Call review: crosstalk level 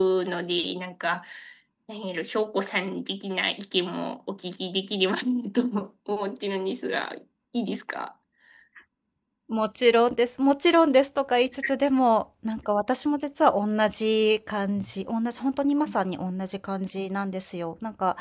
none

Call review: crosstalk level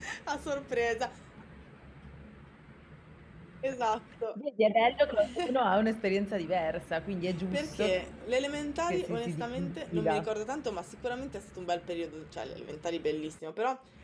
present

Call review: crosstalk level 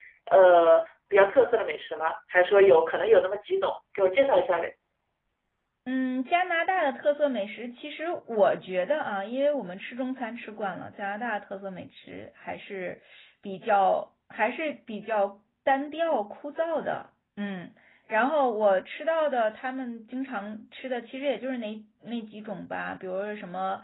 none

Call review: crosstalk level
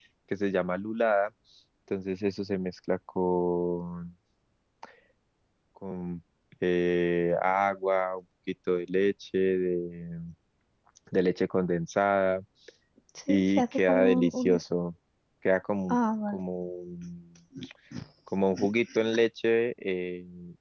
present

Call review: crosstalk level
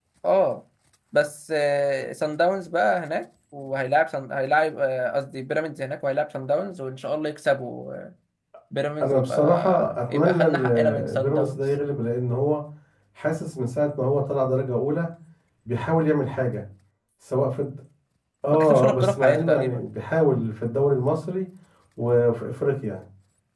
present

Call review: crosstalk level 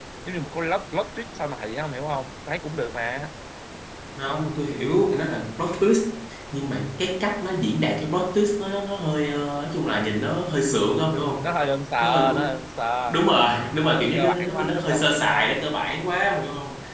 present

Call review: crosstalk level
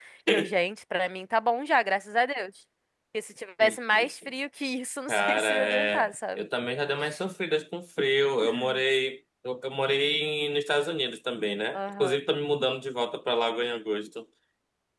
present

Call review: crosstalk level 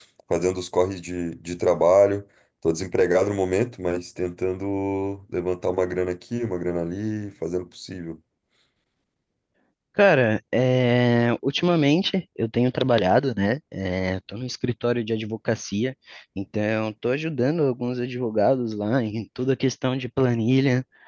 none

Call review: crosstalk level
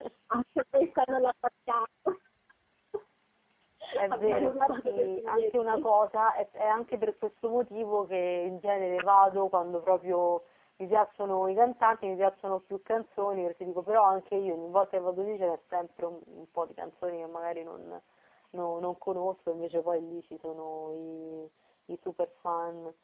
present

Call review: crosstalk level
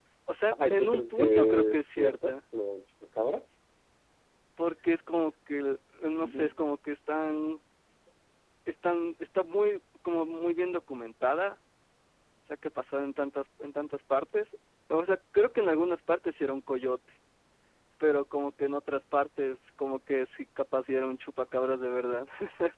present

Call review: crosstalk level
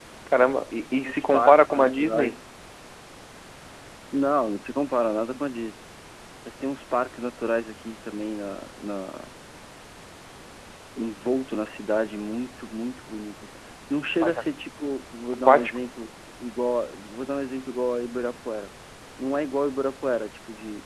present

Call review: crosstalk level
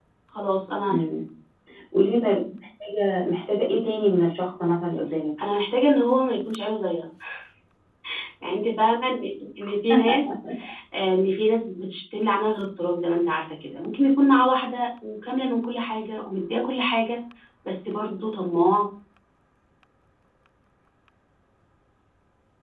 none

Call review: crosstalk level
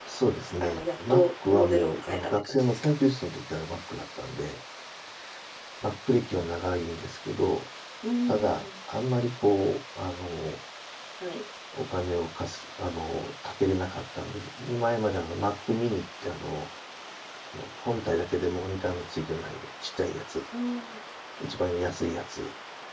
present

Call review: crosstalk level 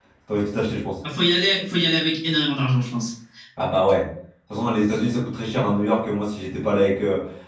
none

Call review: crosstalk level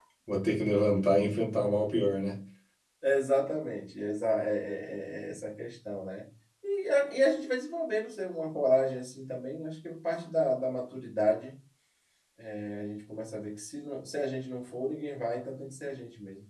none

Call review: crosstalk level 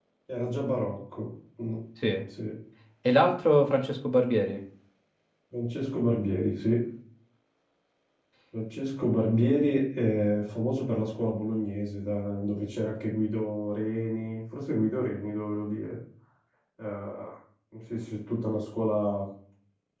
none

